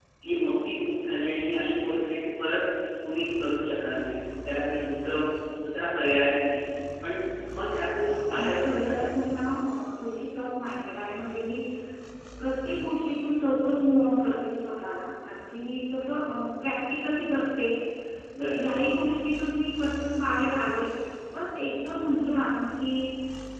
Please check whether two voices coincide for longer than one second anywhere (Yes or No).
Yes